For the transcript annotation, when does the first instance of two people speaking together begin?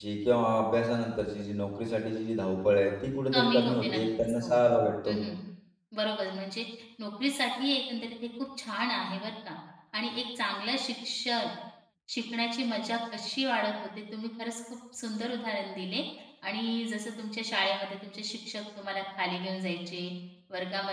3.3 s

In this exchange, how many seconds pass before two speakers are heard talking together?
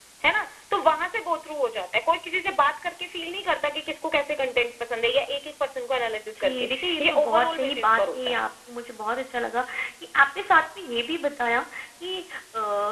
6.4 s

